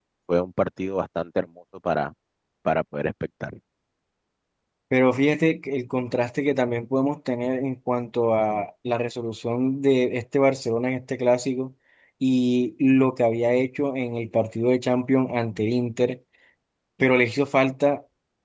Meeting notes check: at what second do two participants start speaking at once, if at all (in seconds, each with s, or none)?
none